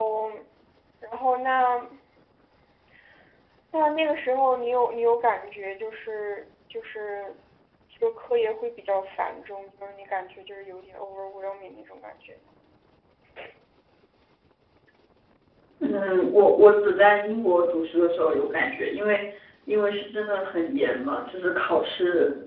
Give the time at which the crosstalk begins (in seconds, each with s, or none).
none